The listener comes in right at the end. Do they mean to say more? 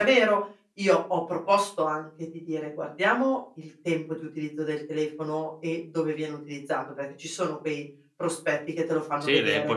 Yes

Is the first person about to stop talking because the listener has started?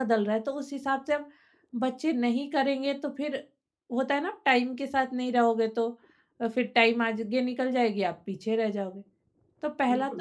Yes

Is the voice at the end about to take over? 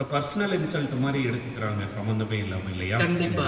Yes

